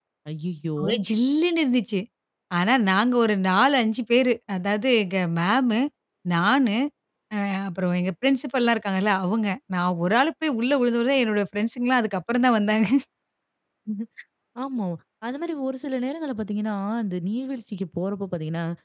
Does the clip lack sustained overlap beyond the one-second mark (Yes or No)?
Yes